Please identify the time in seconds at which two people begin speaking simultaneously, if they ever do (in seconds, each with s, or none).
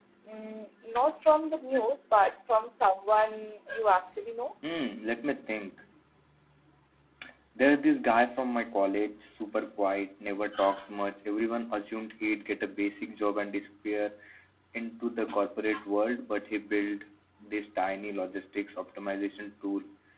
none